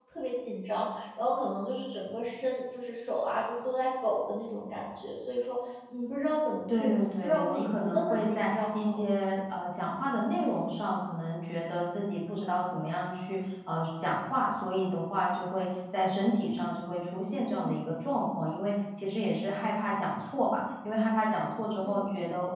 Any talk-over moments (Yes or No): Yes